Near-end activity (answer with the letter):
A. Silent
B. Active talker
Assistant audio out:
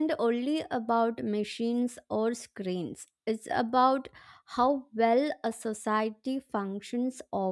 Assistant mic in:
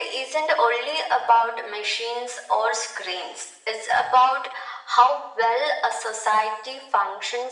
A